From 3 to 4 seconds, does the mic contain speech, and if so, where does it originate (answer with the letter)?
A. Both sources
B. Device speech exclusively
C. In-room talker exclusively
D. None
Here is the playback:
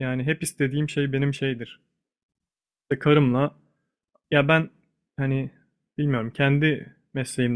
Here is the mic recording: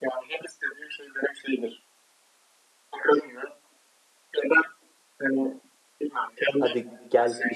B